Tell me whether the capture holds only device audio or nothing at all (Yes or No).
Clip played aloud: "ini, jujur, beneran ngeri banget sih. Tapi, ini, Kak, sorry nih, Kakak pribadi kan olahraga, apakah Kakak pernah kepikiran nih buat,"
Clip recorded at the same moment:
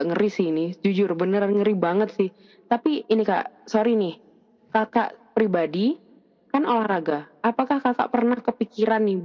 Yes